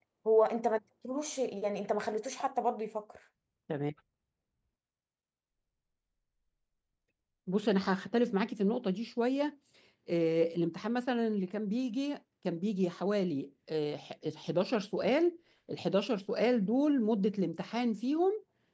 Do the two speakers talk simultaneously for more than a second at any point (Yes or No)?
No